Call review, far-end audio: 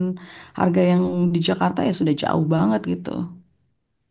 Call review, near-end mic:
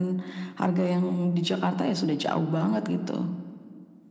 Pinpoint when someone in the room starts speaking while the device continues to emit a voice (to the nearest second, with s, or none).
none